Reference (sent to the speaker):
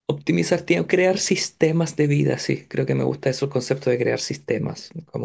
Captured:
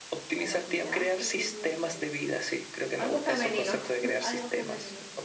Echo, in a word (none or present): present